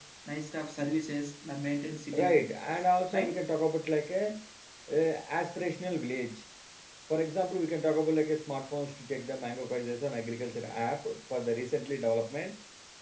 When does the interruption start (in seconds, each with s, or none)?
2.1 s